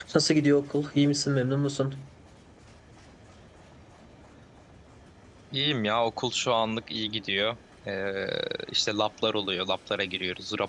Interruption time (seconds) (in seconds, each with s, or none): none